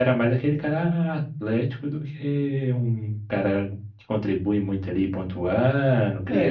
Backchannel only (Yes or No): No